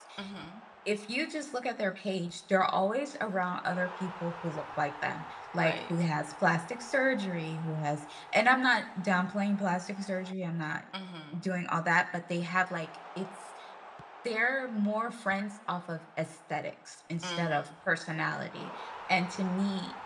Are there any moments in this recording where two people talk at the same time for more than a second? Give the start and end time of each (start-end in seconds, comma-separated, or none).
none